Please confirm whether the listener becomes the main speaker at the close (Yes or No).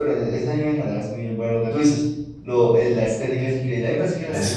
No